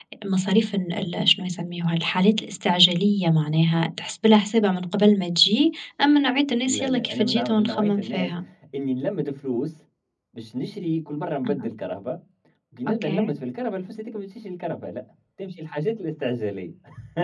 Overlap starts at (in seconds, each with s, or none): 6.7 s